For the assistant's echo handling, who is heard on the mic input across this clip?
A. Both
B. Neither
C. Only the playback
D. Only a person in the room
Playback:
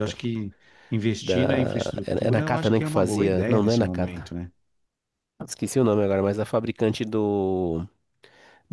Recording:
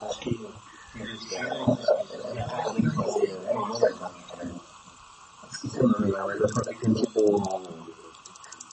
C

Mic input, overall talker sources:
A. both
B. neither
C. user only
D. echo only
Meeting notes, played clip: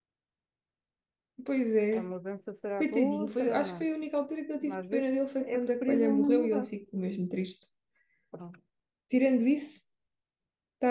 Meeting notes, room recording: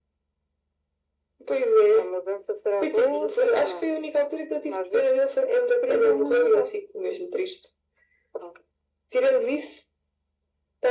D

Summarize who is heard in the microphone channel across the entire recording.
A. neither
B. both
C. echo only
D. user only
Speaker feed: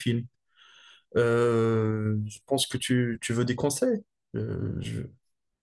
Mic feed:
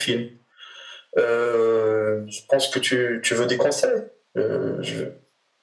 C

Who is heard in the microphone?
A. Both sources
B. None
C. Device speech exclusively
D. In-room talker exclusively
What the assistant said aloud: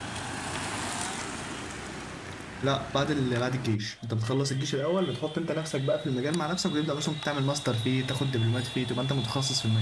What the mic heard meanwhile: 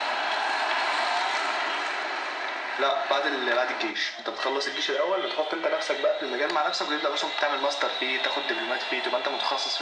C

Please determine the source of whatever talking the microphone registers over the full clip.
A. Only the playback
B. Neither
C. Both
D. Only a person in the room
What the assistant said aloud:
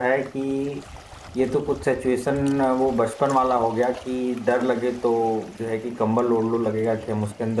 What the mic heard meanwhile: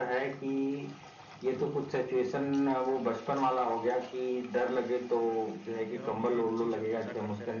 C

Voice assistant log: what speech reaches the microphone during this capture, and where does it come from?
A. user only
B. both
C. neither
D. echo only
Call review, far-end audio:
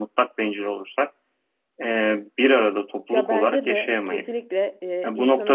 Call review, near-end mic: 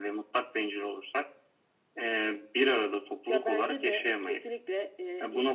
D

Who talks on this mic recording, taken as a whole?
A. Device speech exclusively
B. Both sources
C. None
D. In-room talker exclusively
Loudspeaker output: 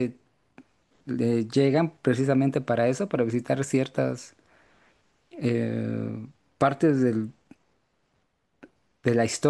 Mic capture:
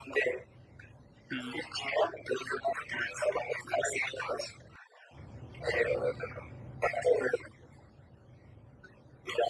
B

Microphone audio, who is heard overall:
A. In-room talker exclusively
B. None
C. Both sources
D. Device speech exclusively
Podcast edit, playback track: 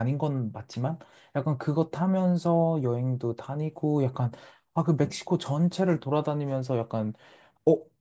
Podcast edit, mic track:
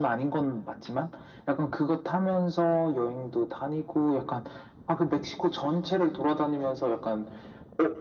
D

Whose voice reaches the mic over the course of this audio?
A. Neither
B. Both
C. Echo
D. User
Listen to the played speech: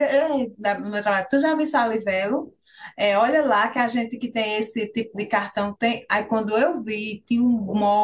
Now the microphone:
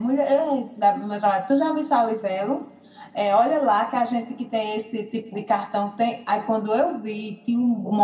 C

